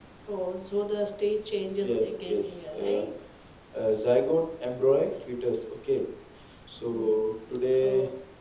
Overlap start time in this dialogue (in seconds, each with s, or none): 1.8 s